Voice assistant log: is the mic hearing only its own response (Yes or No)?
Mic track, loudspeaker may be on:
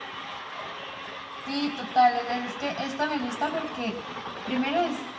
No